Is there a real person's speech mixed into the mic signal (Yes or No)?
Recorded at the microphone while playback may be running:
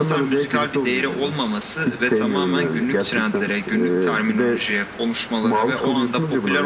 No